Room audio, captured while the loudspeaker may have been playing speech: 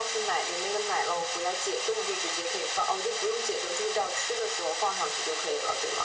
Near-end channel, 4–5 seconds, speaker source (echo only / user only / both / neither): echo only